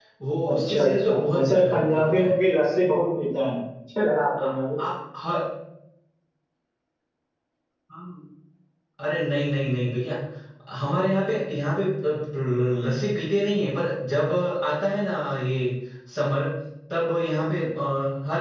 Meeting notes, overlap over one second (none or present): present